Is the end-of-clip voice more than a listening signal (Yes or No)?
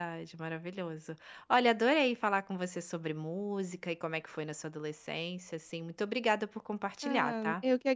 Yes